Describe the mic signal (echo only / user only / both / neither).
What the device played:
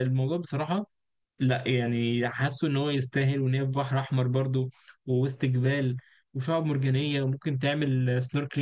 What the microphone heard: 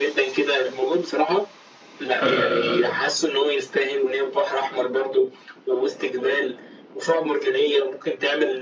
both